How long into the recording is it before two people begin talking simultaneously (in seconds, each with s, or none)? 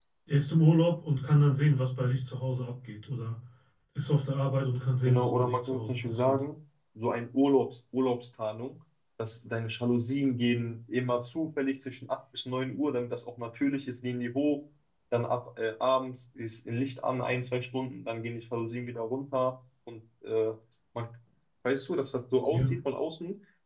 5.0 s